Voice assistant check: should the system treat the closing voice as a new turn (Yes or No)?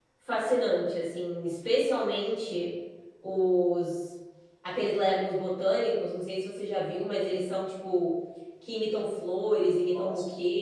No